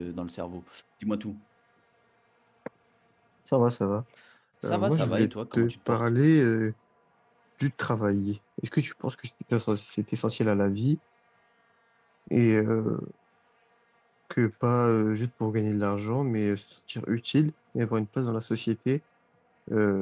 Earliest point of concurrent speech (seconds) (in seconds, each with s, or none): 4.7 s